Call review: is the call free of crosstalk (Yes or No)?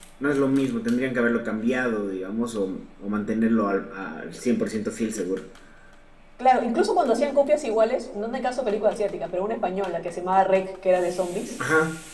Yes